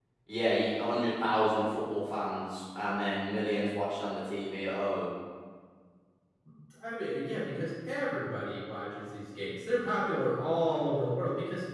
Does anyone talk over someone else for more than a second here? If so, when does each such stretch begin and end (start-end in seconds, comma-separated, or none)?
none